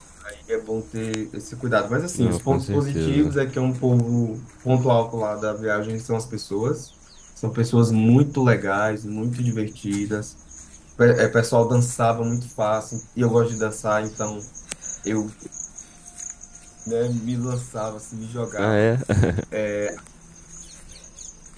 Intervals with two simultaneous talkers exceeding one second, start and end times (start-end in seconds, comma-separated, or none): 2.1-3.3